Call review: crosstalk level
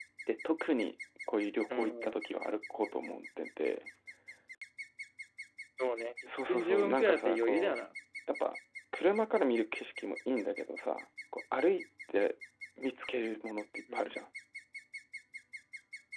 present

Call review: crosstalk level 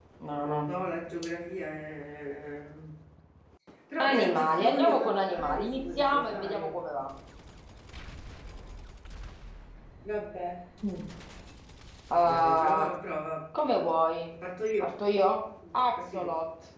present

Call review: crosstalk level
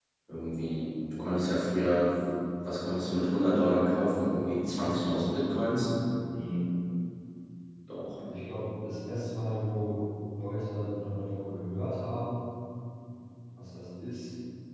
none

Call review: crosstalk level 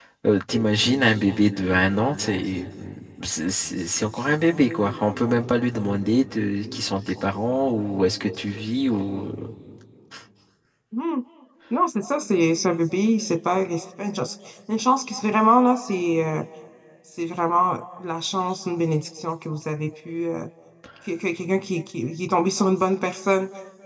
none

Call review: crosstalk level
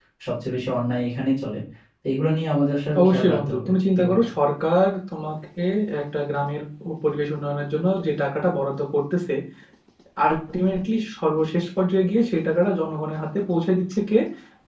present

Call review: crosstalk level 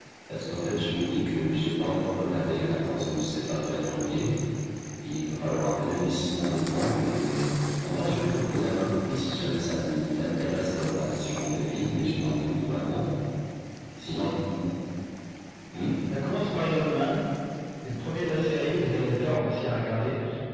none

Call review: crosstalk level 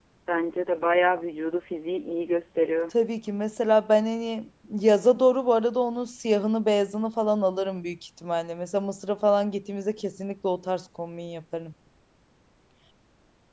none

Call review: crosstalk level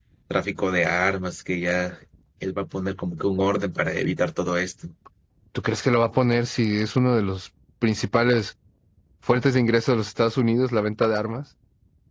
none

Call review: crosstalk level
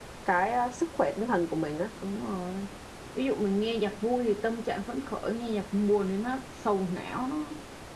none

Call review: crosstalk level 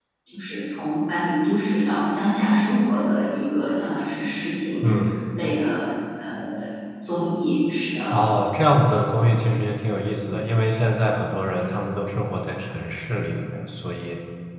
none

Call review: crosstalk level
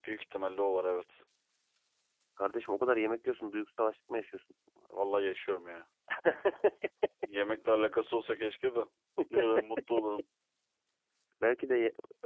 none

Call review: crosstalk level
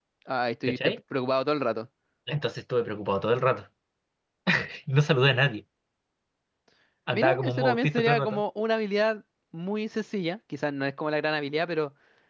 present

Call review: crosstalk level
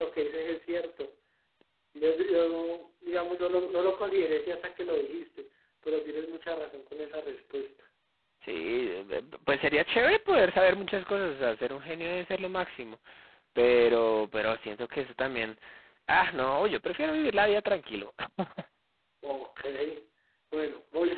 none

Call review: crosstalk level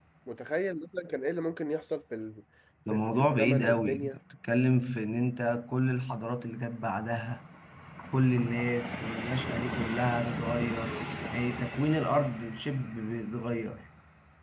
present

